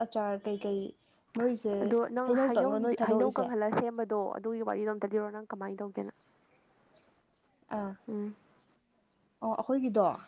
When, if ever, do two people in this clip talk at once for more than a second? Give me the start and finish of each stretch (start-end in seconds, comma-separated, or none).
2.3-3.5